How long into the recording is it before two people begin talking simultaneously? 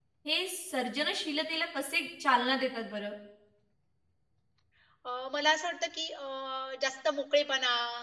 none

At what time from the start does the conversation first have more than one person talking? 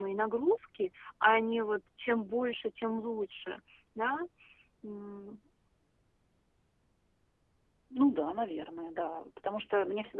none

